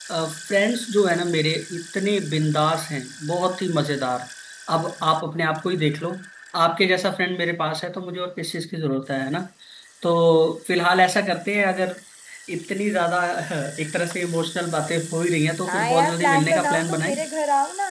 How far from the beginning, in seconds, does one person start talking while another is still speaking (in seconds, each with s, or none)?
15.7 s